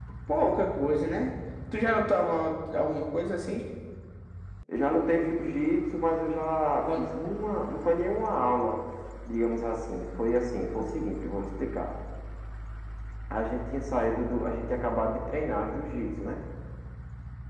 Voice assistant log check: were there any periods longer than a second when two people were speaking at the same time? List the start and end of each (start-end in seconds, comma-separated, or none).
none